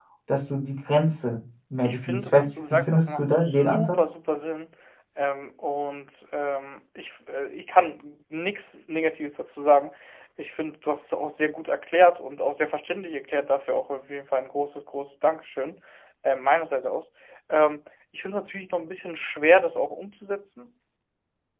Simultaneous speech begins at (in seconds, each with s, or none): 1.8 s